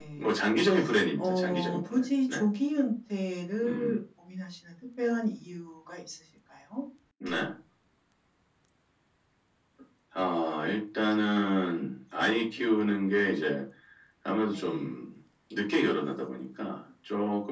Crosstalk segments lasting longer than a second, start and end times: 1.2-2.4

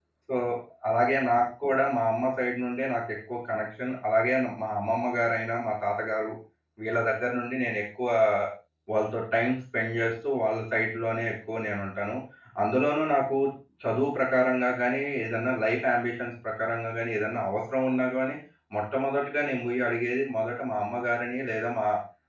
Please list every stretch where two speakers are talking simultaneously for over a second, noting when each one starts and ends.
none

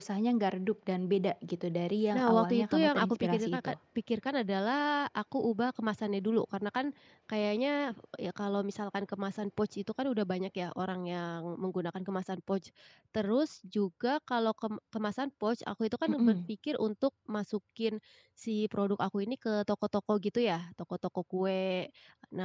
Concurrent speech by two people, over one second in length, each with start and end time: 2.1-3.7

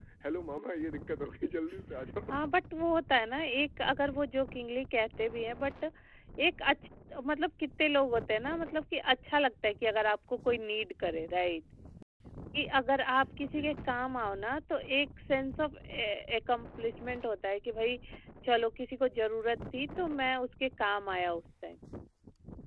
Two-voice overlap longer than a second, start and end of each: none

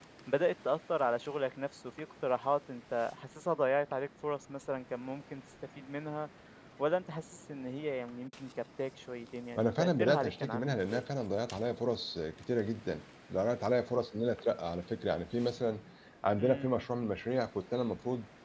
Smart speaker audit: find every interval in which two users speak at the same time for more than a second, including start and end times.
9.6-11.0

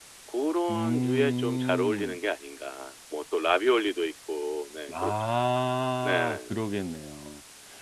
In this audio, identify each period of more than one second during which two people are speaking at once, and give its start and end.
0.7-2.2

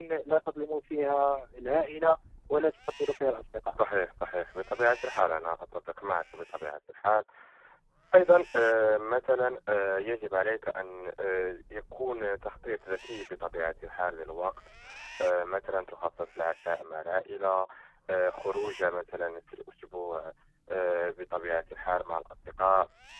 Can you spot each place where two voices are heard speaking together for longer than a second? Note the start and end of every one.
none

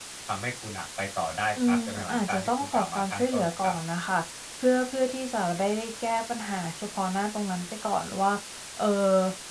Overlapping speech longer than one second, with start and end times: 1.7-3.7

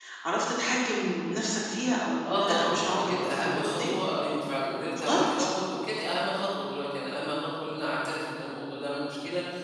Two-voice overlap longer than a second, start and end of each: 2.2-4.0

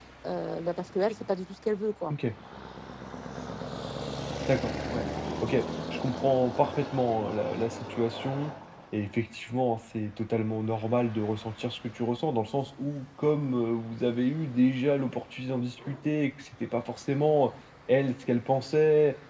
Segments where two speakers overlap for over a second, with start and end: none

